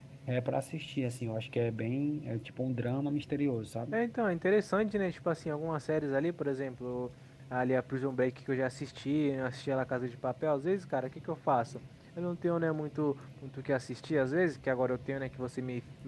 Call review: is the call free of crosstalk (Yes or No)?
Yes